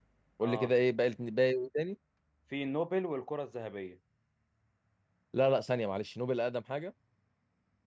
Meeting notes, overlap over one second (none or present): none